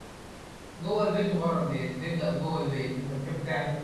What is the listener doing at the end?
taking over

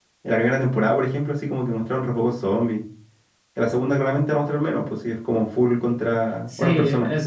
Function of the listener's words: taking over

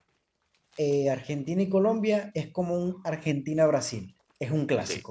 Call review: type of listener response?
taking over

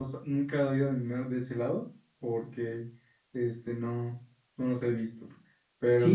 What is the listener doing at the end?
taking over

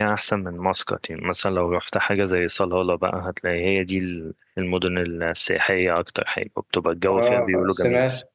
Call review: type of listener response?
taking over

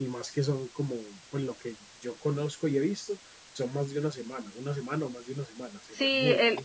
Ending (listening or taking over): taking over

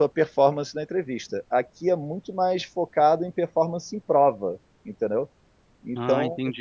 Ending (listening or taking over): listening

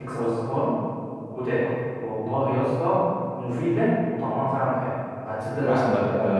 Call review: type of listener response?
taking over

